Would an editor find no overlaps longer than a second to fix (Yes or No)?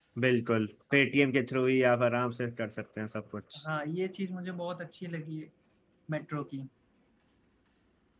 Yes